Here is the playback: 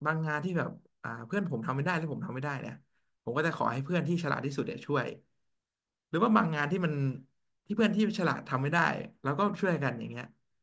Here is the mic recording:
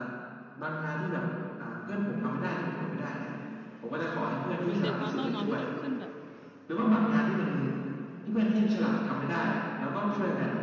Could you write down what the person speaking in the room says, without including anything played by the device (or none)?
เหมือนเด็กมอต้นเนาะที่ต้องขึ้นแบบ